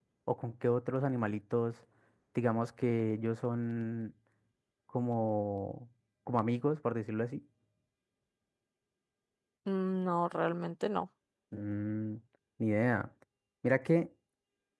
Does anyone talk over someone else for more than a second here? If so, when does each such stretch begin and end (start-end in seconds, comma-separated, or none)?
none